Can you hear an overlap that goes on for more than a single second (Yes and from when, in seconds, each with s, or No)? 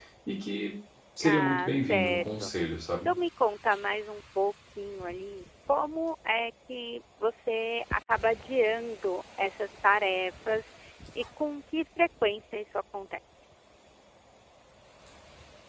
Yes, from 1.2 s